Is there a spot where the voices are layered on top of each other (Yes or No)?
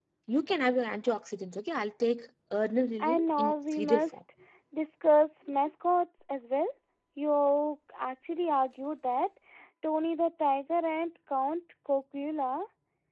Yes